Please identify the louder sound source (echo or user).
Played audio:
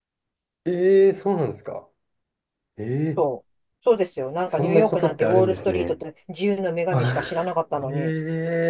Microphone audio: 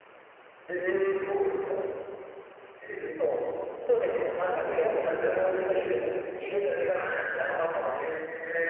echo